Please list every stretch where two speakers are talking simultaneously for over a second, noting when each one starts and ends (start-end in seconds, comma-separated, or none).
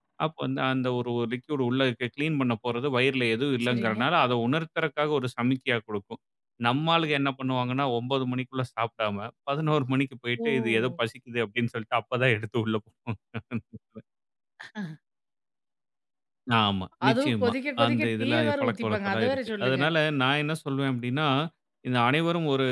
17.1-19.8